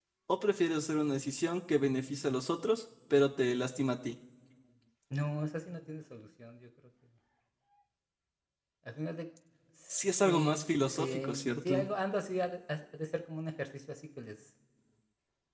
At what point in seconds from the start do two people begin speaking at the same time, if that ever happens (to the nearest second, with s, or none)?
10 s